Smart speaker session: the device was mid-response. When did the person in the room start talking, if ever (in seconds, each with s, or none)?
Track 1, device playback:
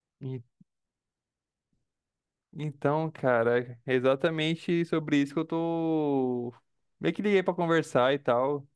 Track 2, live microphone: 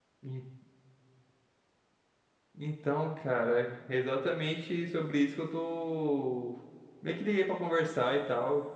none